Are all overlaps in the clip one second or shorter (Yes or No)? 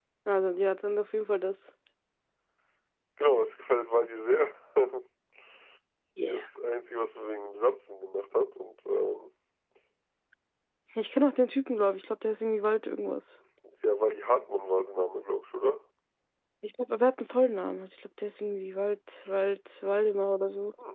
Yes